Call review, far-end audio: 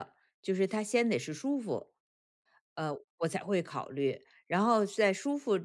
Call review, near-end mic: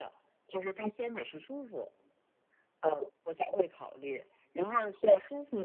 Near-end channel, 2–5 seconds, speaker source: echo only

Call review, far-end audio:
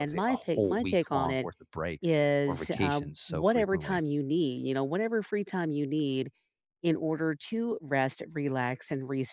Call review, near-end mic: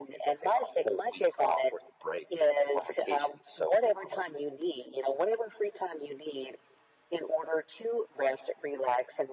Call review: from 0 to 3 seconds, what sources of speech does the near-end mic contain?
echo only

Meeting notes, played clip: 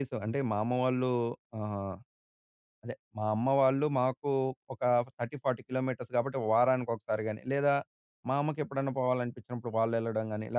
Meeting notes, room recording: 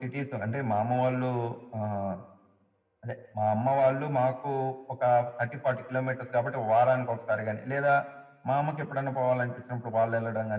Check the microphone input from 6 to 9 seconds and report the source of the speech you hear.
echo only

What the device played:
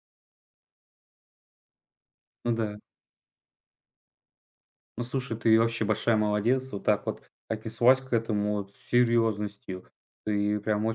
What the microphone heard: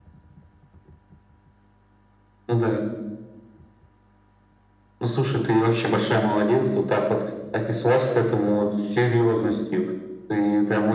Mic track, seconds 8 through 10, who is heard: echo only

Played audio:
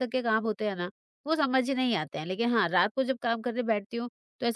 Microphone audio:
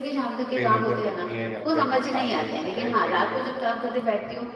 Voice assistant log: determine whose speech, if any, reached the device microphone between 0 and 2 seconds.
both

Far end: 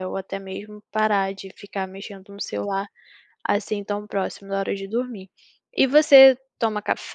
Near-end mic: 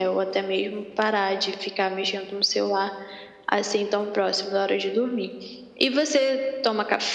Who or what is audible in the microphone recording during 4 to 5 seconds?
echo only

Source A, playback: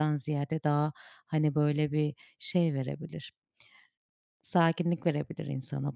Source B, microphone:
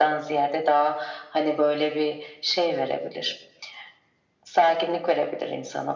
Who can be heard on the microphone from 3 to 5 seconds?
echo only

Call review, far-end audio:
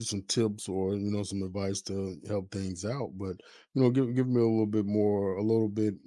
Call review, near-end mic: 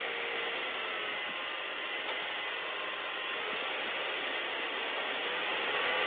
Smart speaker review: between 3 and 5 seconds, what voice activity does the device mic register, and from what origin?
neither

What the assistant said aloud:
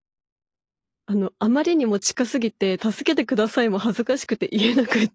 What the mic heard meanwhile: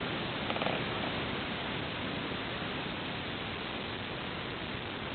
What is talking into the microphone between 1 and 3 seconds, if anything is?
neither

